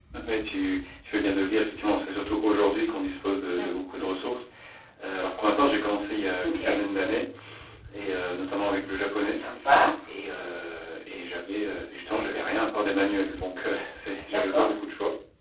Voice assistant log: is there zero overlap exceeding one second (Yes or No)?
Yes